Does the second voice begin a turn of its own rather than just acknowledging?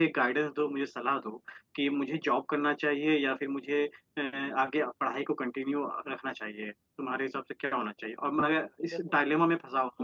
No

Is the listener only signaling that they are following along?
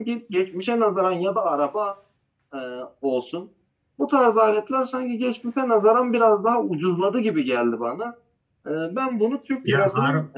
Yes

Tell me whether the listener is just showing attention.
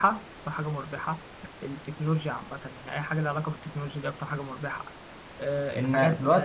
No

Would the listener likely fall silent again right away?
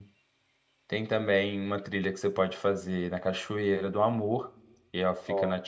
Yes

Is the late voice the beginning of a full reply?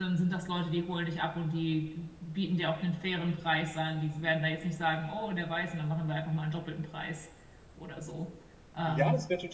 Yes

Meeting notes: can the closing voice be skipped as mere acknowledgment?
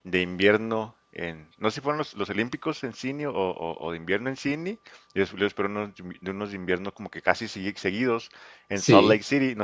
Yes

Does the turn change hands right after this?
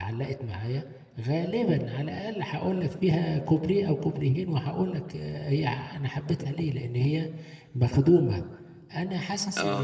No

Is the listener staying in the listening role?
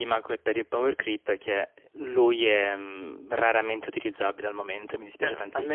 No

